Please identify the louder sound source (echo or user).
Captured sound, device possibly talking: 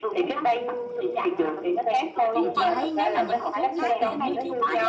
echo